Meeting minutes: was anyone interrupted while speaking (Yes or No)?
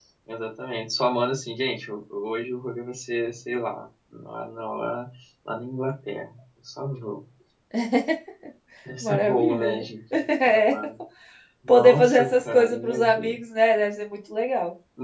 Yes